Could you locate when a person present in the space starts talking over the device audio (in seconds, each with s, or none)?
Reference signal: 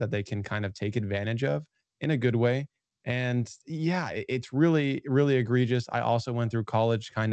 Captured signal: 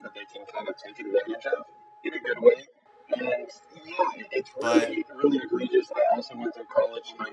4.6 s